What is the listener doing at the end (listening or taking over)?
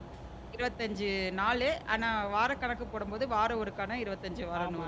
taking over